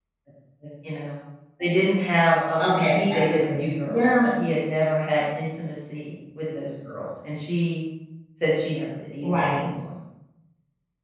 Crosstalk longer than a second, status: present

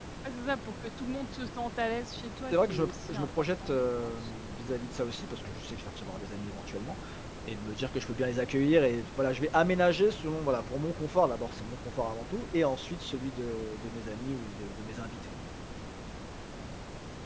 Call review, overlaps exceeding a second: present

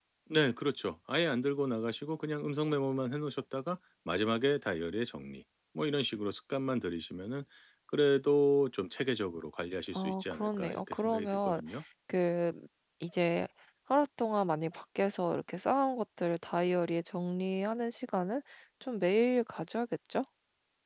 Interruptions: present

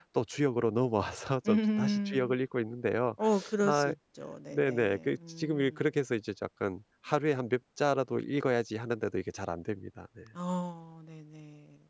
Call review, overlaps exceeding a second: present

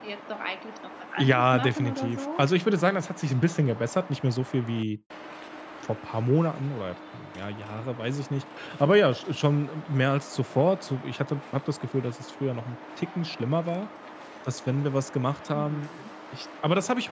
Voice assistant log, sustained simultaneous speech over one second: present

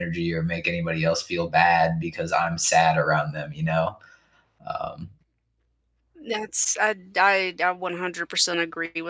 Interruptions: none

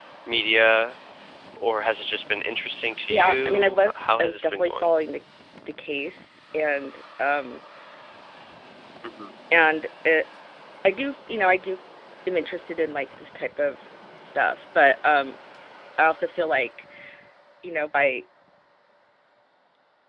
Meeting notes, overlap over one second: present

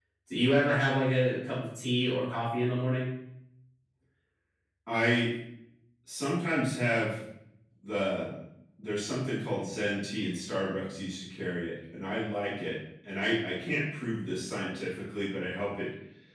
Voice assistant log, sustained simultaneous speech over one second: none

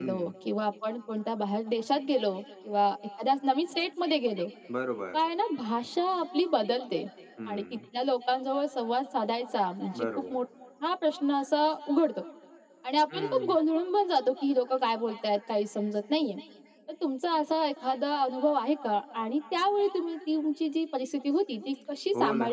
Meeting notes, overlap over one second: none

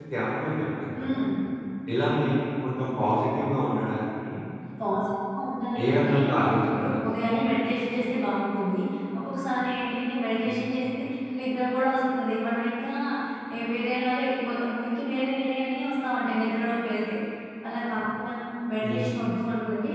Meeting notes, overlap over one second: none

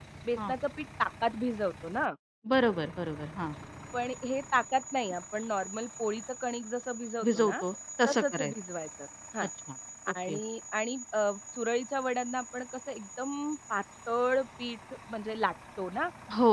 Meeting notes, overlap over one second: none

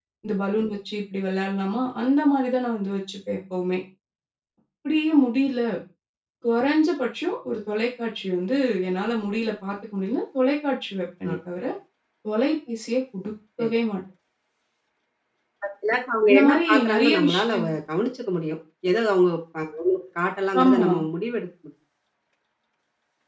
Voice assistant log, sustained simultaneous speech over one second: present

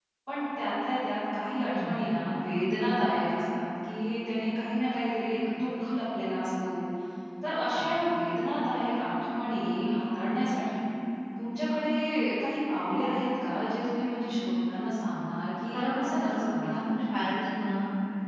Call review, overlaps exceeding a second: present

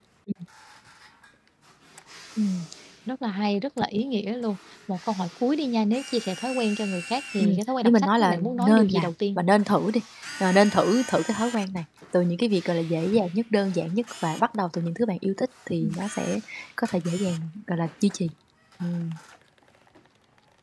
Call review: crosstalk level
present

